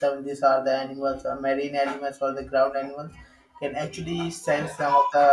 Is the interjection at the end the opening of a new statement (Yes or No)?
No